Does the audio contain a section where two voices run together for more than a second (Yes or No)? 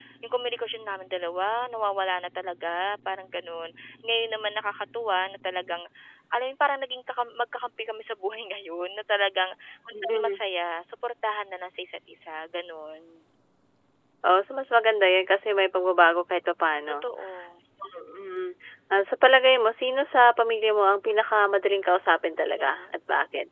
No